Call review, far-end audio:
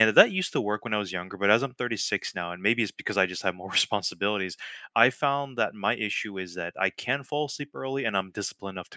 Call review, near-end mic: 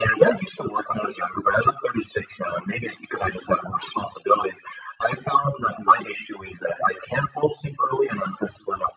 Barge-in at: none

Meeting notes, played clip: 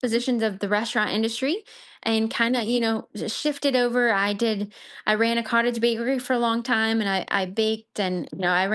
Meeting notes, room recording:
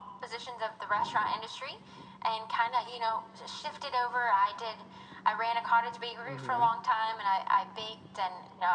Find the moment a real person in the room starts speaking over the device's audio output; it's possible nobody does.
6.3 s

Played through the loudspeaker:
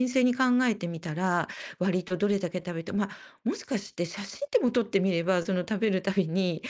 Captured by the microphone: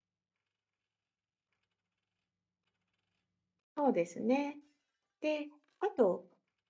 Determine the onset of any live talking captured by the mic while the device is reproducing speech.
3.8 s

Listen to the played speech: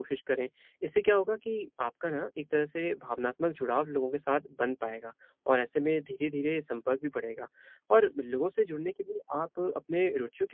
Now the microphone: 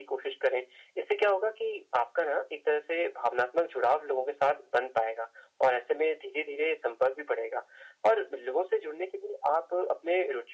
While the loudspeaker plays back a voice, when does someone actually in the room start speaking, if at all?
none

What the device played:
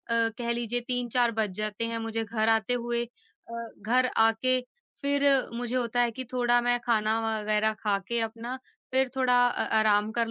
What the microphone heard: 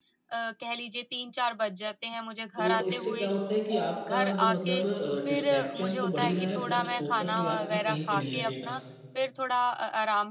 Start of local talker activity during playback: 2.6 s

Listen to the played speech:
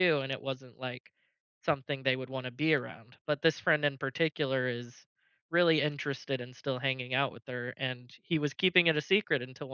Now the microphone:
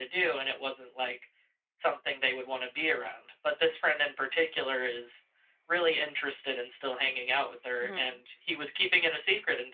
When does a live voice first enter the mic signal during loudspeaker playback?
7.8 s

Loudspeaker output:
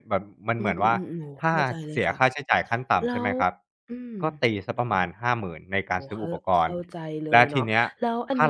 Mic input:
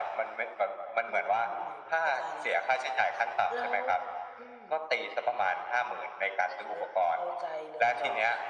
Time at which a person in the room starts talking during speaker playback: none

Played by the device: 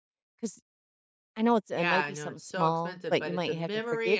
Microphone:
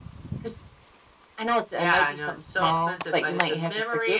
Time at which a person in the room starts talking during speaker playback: none

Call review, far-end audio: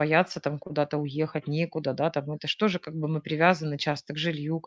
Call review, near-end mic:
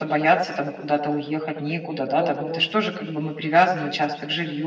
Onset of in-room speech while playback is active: 2.1 s

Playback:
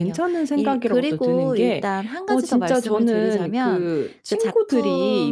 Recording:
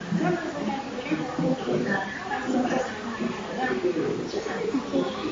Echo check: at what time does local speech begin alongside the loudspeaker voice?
none

